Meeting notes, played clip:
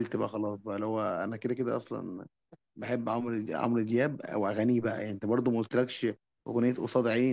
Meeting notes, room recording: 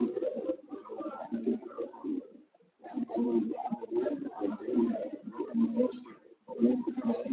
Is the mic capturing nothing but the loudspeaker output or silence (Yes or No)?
Yes